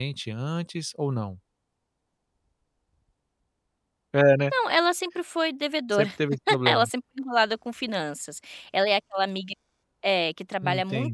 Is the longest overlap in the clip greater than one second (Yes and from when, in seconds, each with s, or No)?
No